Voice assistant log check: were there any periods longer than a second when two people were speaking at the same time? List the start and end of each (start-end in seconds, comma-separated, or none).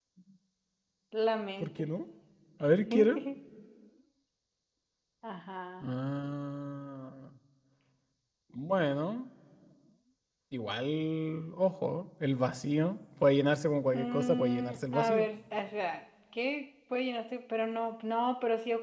13.9-15.2